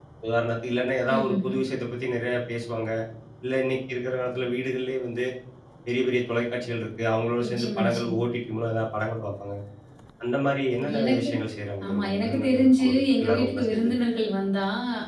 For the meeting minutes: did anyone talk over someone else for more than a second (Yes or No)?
Yes